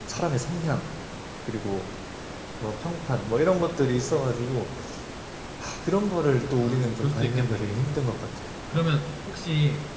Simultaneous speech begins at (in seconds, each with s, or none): 6.6 s